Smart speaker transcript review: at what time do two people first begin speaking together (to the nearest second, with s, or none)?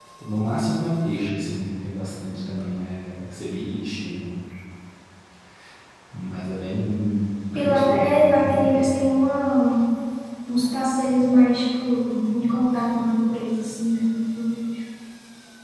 8 s